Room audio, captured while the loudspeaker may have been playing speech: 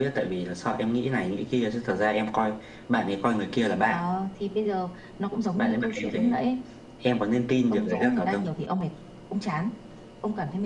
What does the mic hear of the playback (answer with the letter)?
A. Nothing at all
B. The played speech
B